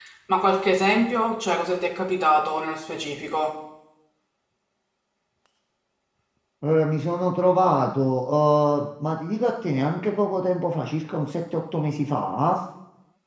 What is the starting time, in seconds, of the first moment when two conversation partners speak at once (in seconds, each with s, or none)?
none